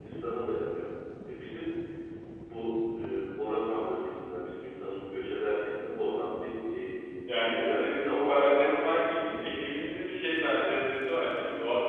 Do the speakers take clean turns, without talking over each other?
No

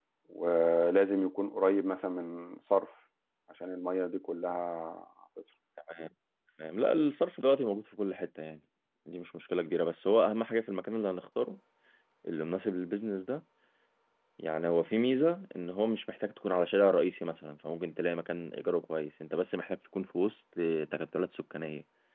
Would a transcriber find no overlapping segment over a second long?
Yes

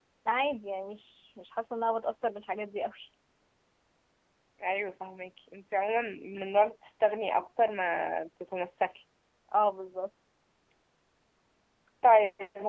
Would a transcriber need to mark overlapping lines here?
No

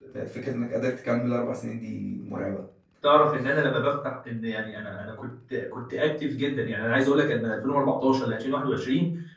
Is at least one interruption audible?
No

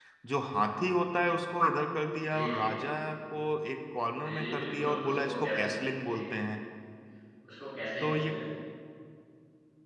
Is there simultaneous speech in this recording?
Yes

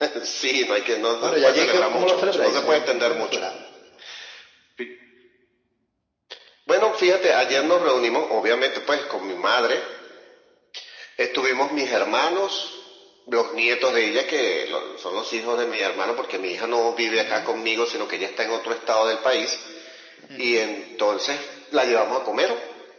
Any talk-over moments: Yes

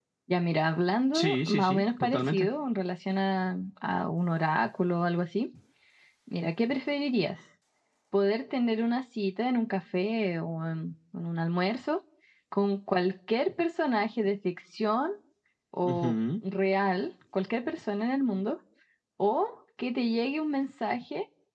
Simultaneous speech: Yes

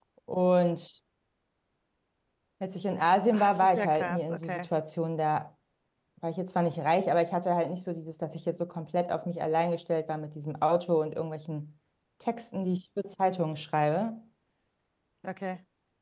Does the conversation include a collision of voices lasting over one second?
Yes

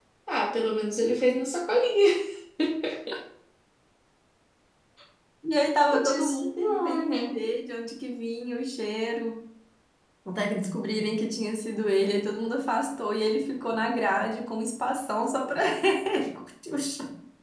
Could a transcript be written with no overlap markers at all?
No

